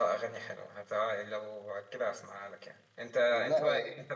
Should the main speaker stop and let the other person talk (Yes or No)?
No